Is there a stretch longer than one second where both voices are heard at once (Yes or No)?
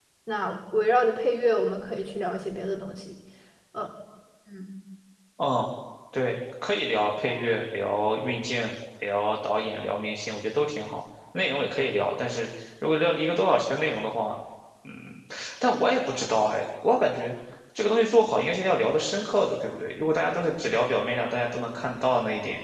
No